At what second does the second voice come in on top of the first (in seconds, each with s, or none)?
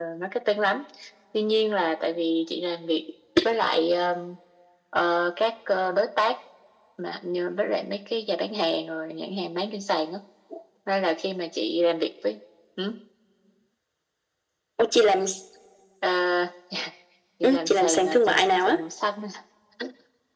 17.4 s